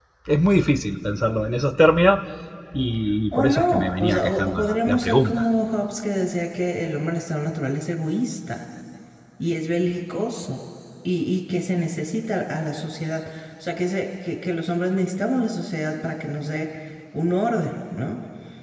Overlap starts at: 3.3 s

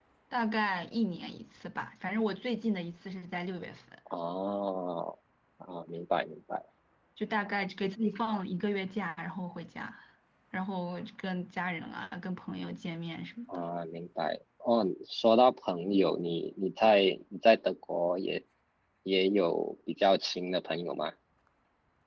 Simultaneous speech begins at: none

